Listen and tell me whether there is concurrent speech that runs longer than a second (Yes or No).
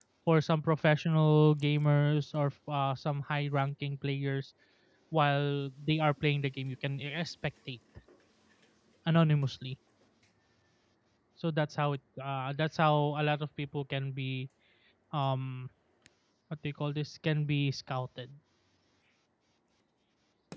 No